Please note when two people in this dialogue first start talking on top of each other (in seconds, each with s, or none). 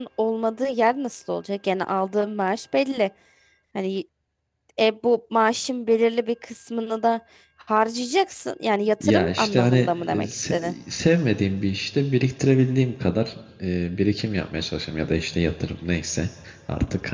9.0 s